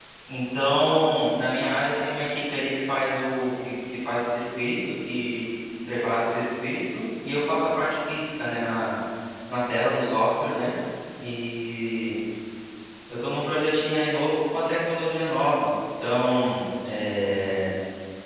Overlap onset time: none

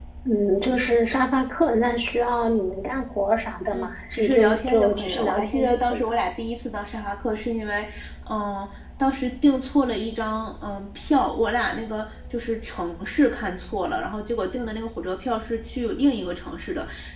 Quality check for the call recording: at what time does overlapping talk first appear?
3.7 s

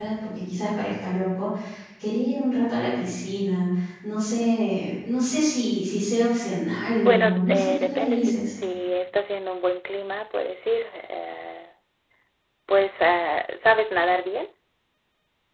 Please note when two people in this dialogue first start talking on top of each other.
7.0 s

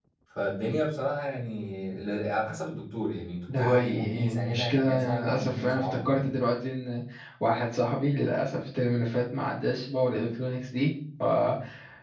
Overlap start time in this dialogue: 3.5 s

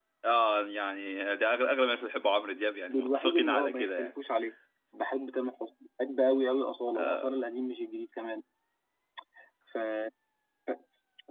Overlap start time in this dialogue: 2.9 s

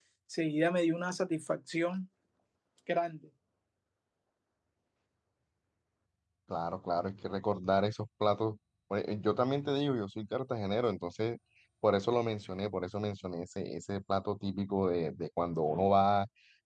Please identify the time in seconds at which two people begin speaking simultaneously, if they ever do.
none

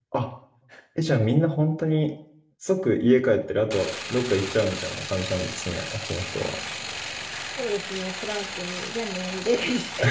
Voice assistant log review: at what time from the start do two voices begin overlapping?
none

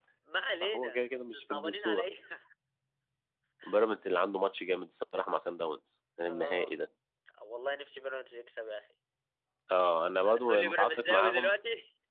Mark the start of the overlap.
0.6 s

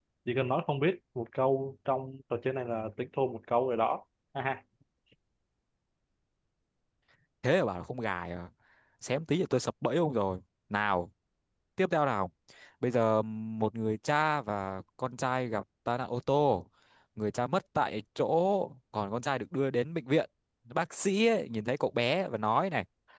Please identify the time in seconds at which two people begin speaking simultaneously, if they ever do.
none

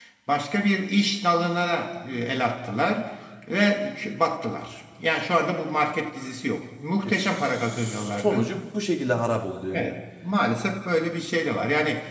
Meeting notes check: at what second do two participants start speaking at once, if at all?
7.0 s

